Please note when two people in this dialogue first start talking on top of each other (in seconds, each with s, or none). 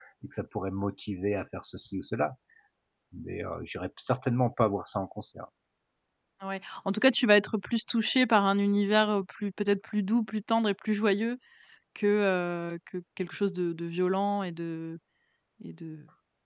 none